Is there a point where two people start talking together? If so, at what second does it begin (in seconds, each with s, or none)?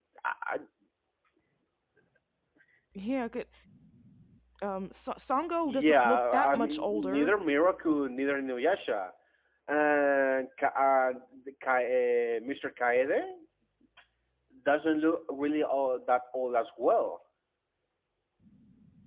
5.7 s